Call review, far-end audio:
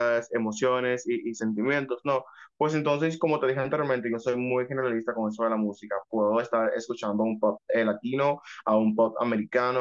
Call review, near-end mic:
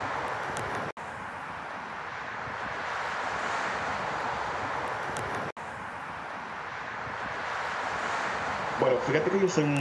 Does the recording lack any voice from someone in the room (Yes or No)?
No